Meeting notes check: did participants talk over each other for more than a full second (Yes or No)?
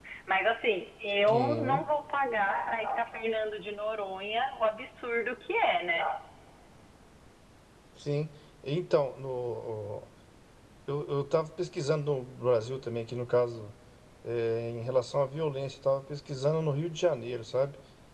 No